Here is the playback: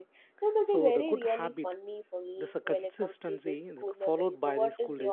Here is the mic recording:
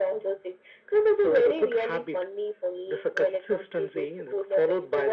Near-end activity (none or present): none